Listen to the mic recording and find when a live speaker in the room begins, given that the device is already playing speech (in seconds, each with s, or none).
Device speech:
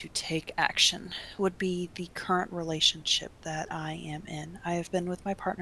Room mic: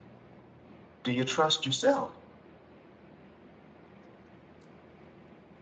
1.0 s